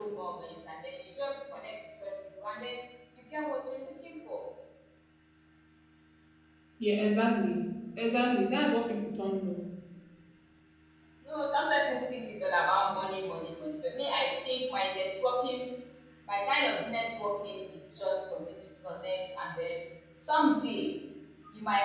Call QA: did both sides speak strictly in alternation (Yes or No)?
Yes